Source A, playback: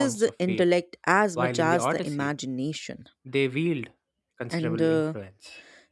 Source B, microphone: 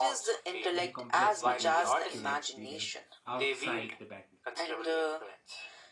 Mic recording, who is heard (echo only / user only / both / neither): both